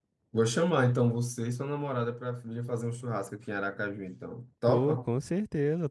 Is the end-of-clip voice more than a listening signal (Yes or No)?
Yes